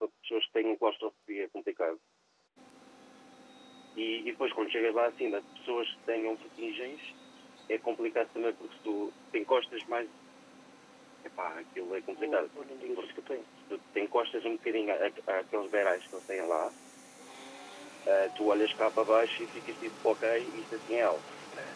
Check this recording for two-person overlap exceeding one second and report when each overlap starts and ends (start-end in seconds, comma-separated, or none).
none